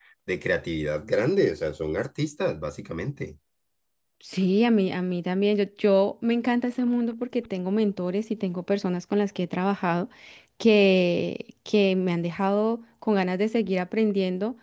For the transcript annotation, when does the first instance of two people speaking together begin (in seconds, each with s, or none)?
none